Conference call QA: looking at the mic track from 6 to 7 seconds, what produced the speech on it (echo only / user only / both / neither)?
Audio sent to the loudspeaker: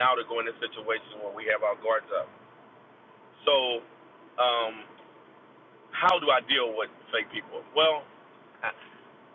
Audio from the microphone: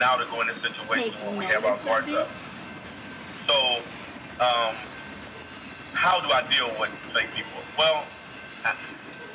echo only